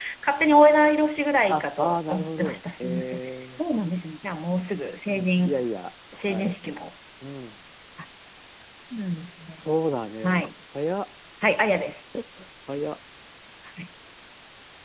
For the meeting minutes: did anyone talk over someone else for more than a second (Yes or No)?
Yes